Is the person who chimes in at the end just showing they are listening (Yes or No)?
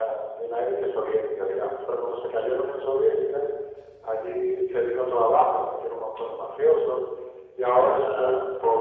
Yes